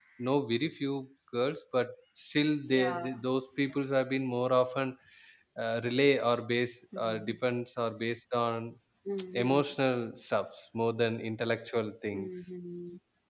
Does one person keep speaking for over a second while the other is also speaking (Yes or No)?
No